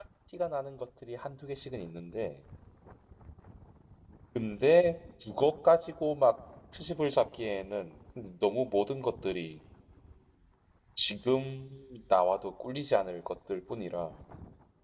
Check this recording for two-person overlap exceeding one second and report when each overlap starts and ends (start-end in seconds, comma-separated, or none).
none